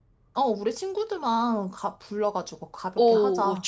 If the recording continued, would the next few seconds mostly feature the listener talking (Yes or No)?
Yes